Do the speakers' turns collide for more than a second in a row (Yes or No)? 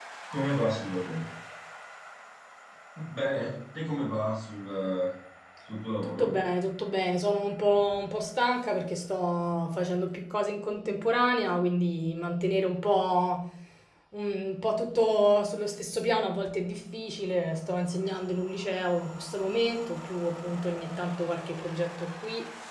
No